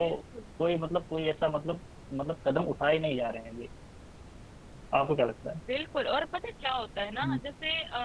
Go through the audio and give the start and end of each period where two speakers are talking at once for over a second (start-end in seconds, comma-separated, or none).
none